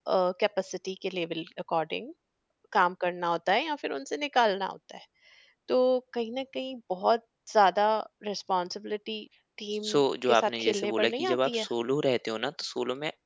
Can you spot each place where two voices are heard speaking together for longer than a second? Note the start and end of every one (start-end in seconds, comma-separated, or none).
9.8-11.7